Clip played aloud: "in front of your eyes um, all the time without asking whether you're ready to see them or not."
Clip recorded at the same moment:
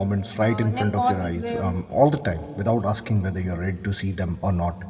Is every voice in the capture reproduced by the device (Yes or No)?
No